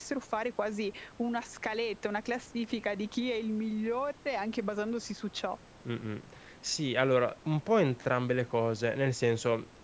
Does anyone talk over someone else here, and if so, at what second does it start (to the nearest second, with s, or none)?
none